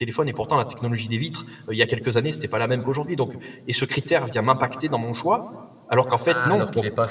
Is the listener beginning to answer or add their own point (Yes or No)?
Yes